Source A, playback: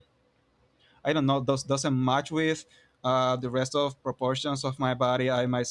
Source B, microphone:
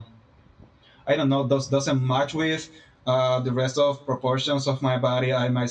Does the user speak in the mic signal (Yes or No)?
No